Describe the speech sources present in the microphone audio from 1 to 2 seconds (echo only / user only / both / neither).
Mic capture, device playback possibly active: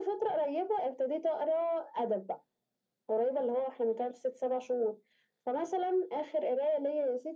echo only